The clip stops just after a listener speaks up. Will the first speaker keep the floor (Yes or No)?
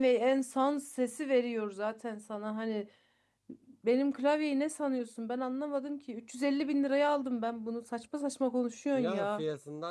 No